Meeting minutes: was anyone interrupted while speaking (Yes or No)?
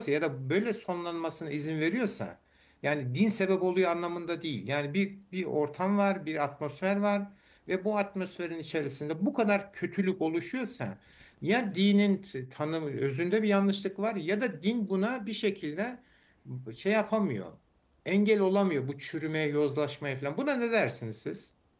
No